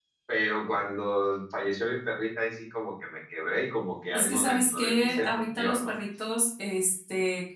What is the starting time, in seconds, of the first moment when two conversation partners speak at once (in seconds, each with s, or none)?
4.1 s